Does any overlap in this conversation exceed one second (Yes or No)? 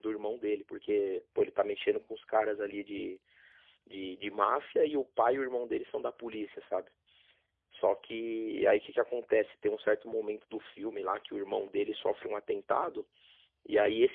No